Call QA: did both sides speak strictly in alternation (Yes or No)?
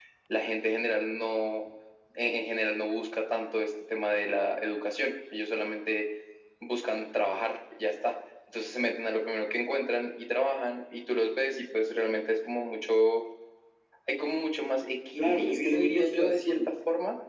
No